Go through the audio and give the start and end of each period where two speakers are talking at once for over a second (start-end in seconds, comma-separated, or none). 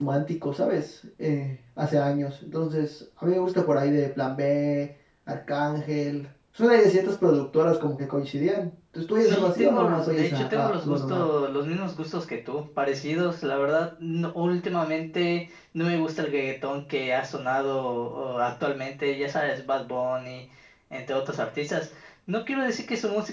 9.2-11.2